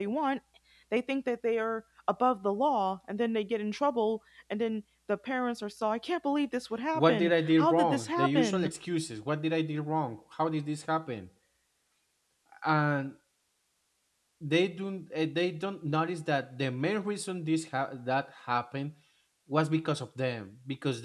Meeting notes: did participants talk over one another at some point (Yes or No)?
Yes